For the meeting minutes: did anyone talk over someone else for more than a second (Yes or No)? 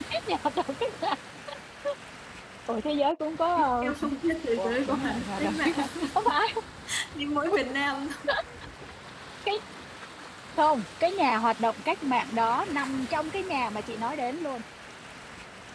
Yes